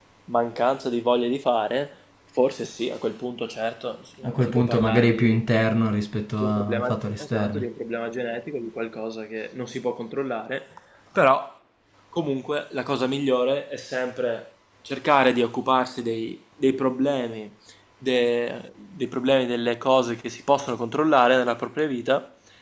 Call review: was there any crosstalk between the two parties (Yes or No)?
Yes